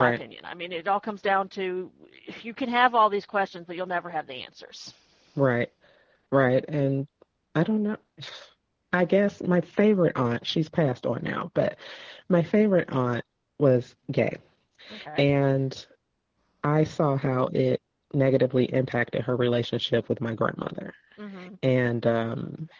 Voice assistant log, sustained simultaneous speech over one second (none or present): none